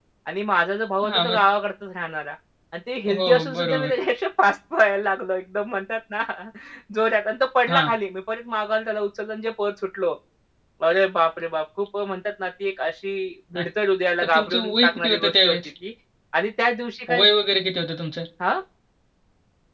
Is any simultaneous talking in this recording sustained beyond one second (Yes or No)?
Yes